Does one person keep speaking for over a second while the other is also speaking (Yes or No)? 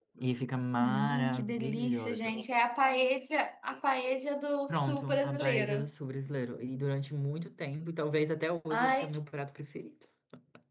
Yes